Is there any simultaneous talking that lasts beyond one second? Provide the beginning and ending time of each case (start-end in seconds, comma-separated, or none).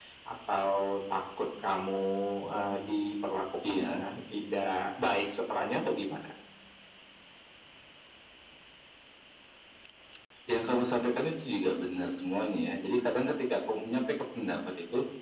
none